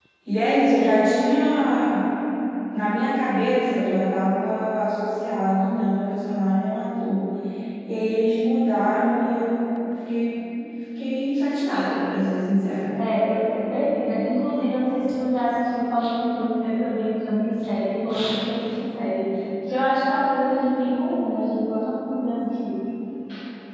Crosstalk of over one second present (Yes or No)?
No